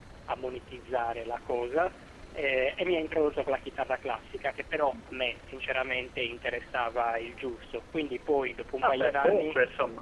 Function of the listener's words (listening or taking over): taking over